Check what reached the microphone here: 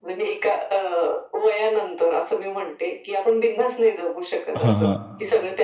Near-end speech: present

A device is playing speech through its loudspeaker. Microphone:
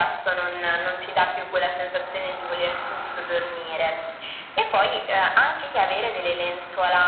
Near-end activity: none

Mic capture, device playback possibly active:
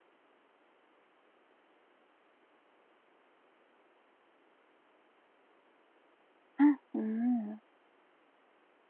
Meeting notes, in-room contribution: present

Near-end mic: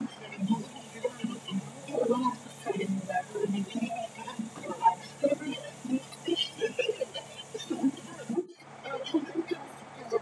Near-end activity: none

